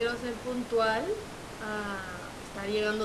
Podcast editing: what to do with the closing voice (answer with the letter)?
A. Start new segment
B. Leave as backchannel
A